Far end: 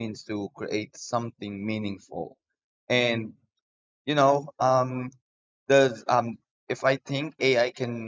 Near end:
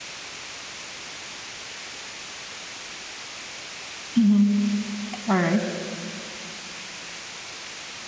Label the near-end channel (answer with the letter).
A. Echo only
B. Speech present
B